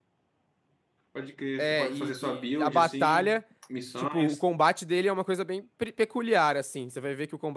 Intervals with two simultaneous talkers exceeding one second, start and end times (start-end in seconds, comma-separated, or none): 1.6-3.4